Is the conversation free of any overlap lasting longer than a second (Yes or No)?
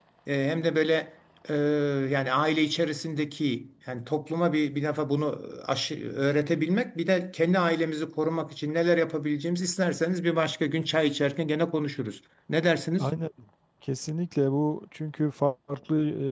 Yes